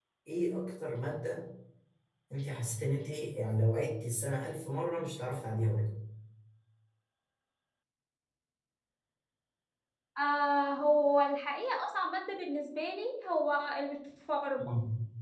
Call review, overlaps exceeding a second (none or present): none